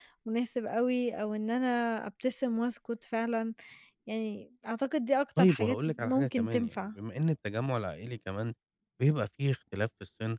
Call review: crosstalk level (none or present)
present